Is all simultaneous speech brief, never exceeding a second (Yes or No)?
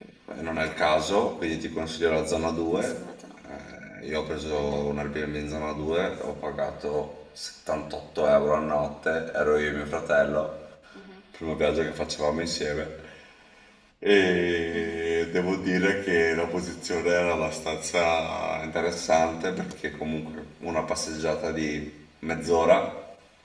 Yes